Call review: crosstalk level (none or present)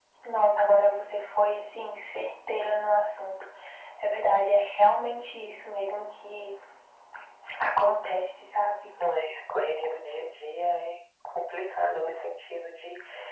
none